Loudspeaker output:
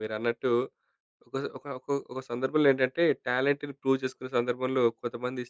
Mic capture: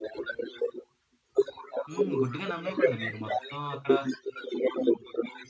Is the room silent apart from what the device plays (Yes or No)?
No